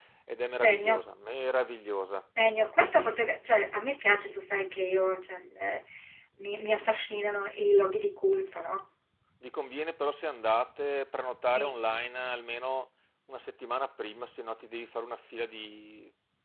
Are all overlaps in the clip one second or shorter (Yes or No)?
Yes